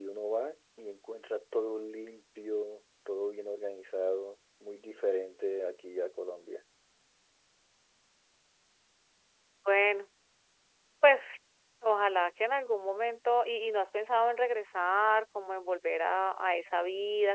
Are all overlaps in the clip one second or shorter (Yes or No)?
Yes